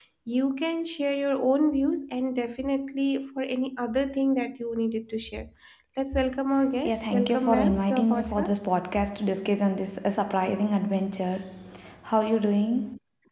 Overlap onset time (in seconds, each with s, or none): 6.8 s